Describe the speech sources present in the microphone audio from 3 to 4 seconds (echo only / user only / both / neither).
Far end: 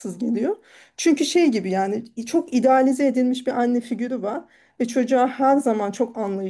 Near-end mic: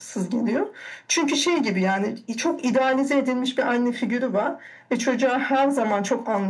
echo only